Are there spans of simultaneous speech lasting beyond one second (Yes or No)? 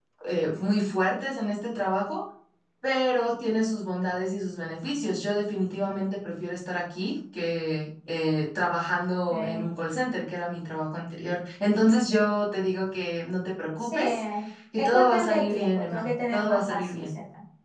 Yes